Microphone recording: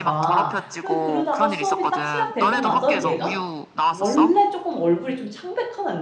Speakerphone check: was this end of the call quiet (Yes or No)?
No